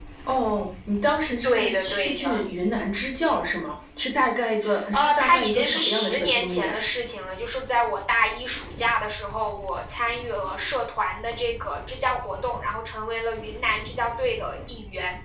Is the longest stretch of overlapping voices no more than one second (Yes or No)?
No